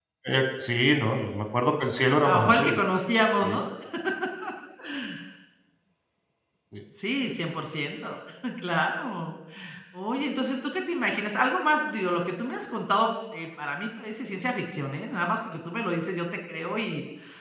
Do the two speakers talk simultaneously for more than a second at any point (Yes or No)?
No